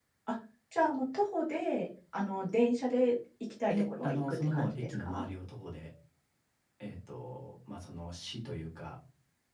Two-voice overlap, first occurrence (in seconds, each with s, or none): 3.7 s